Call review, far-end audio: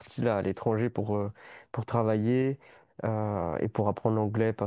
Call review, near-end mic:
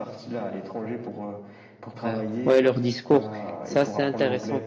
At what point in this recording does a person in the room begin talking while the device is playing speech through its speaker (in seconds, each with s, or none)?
2.1 s